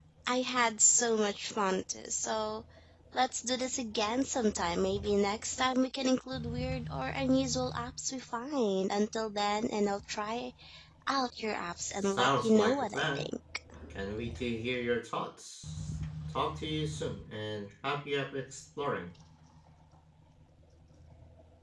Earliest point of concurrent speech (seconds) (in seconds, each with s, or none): 11.9 s